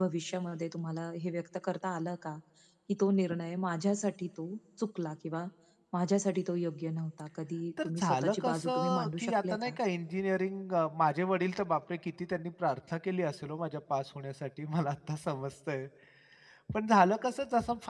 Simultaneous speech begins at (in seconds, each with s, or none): 7.8 s